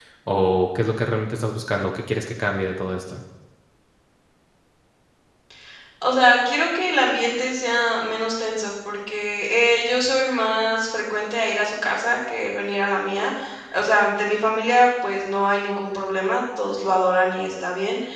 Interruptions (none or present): none